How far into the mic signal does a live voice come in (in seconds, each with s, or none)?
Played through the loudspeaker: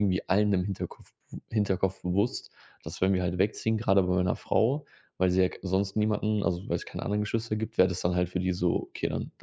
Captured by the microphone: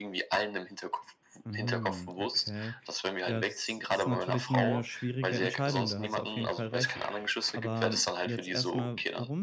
1.4 s